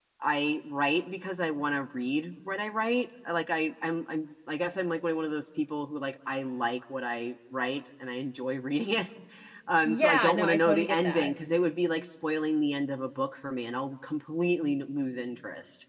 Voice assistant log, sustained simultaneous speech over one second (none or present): present